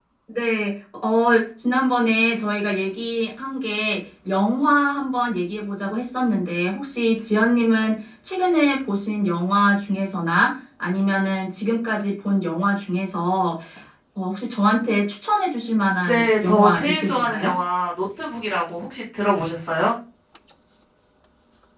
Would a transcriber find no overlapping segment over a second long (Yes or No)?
No